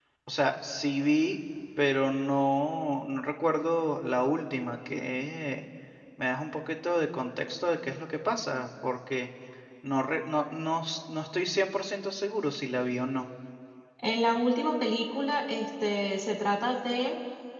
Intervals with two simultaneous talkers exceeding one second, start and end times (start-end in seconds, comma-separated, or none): none